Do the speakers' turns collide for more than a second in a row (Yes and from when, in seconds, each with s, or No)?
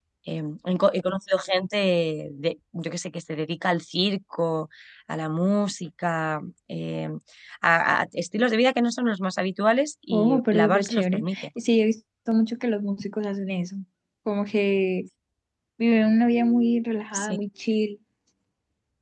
Yes, from 10.1 s